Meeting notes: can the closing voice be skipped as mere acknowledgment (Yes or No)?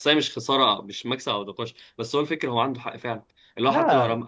Yes